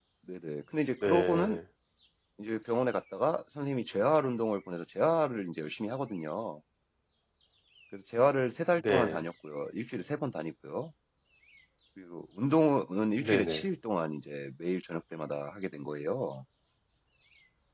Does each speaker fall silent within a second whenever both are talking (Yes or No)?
Yes